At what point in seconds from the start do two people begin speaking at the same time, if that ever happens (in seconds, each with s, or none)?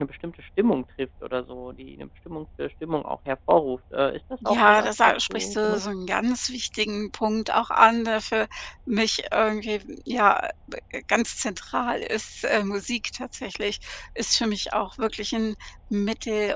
4.4 s